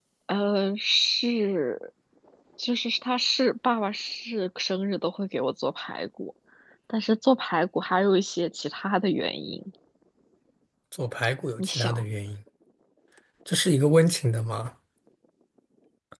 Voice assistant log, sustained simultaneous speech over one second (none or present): none